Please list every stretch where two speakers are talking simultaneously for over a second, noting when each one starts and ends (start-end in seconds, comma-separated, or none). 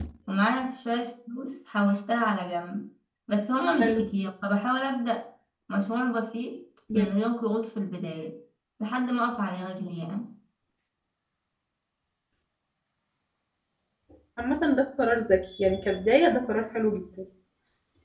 none